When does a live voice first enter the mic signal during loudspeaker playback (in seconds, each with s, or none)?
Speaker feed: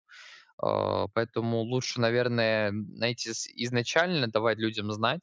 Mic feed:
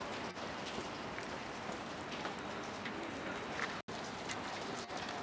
none